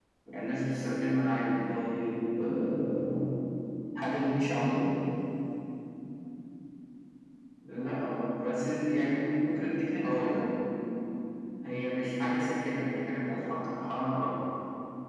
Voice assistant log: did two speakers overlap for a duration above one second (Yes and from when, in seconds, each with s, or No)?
No